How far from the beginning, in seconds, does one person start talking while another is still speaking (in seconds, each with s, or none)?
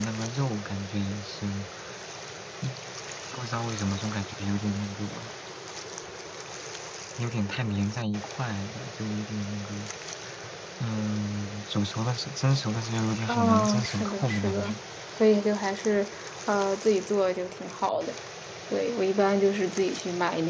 13.3 s